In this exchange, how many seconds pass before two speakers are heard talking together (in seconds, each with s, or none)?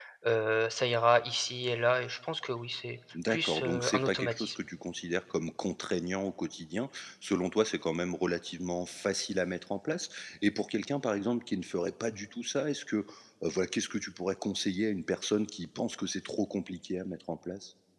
3.1 s